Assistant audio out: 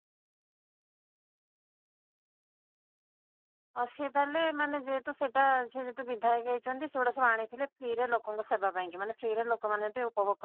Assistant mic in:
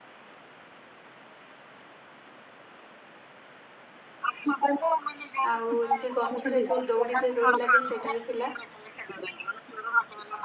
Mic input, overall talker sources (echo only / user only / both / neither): both